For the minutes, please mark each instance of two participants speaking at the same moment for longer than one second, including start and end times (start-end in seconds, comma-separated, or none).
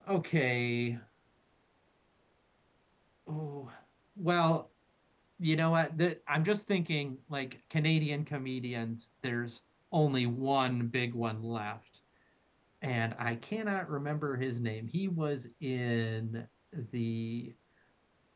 none